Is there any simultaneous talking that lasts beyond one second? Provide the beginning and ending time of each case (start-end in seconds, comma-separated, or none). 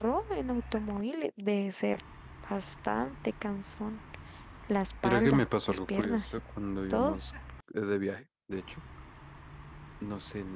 5.0-6.4